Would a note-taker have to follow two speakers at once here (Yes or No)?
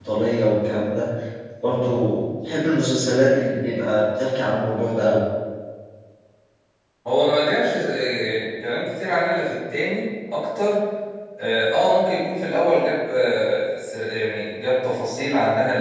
No